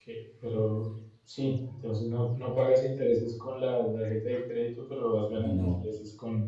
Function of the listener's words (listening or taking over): listening